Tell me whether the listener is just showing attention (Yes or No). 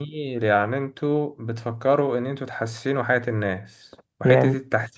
Yes